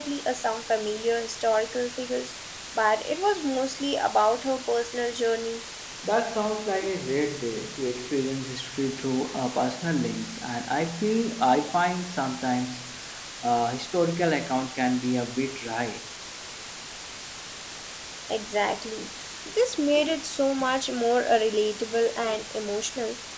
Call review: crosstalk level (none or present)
none